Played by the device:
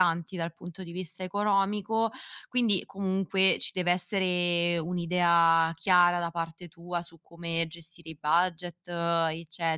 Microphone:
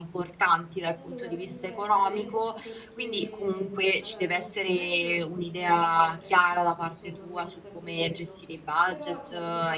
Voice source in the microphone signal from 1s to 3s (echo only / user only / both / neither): both